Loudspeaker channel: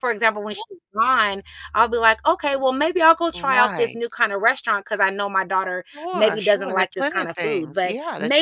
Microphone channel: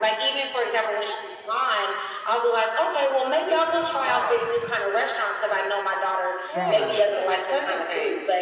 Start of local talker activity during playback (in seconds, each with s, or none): 6.5 s